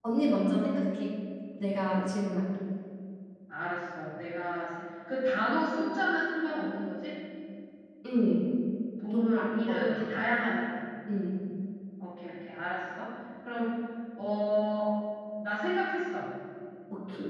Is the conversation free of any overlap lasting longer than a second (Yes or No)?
Yes